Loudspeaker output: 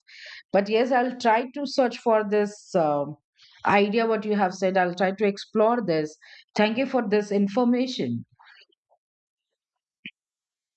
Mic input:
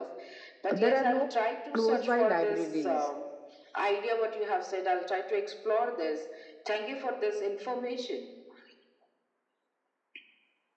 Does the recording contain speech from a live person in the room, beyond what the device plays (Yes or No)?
Yes